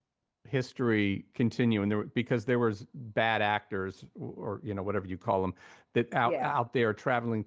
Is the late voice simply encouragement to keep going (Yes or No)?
Yes